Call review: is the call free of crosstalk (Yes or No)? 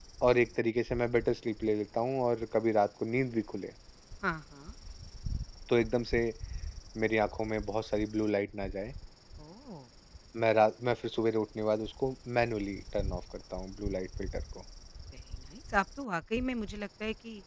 Yes